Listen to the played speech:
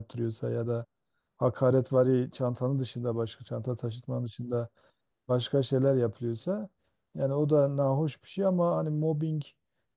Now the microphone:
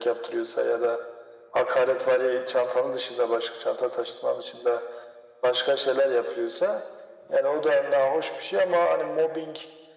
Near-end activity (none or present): none